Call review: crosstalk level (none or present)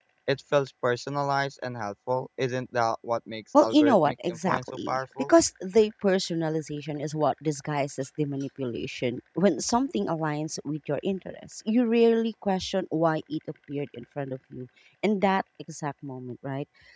present